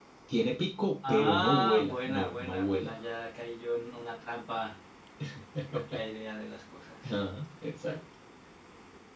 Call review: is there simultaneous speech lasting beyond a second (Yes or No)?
Yes